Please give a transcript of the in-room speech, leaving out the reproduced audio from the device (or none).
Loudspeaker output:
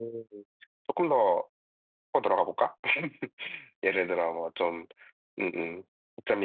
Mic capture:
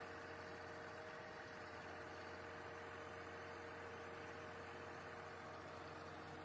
none